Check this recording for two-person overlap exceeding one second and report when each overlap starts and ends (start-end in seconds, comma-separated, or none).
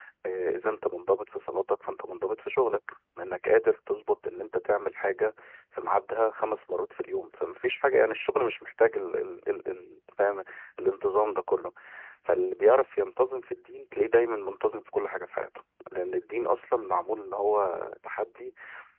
none